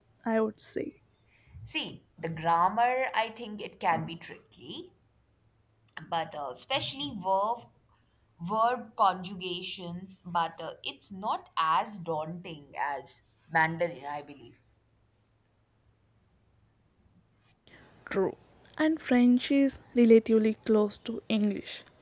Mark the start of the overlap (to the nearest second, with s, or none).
none